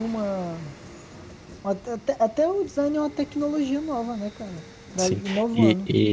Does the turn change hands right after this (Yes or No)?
Yes